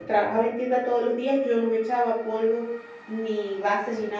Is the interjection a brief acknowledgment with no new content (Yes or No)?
Yes